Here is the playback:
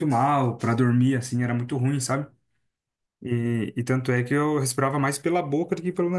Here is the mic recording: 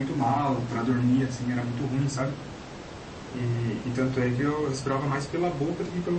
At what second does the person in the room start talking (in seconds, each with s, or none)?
none